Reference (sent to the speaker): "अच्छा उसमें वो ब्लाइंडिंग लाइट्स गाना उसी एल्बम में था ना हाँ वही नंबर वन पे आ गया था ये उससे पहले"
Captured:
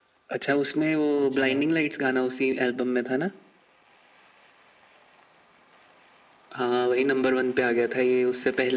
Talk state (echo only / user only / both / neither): both